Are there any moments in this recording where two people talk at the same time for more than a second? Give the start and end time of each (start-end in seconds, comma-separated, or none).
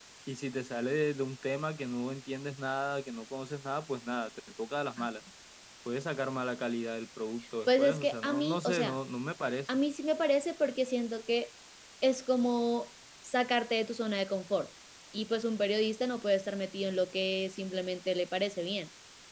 7.7-9.0